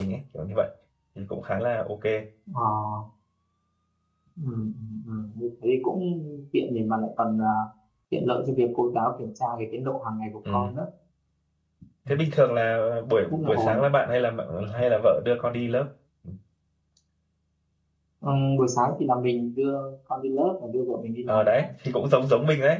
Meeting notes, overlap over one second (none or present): none